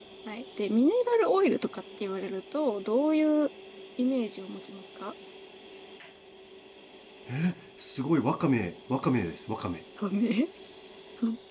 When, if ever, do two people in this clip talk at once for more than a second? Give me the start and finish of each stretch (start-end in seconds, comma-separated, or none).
none